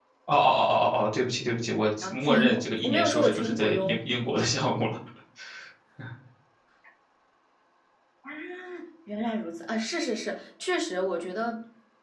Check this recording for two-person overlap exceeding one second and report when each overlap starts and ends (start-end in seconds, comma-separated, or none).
2.0-4.0